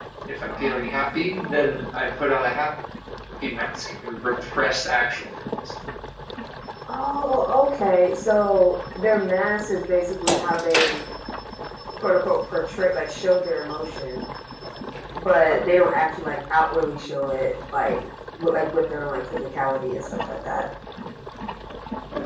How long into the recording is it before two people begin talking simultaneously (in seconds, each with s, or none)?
0.5 s